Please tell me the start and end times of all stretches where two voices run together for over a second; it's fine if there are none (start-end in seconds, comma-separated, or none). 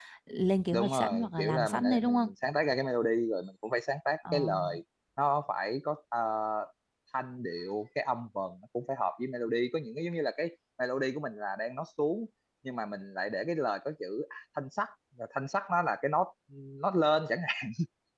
0.7-2.3